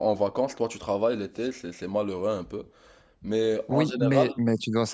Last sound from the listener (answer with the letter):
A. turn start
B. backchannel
A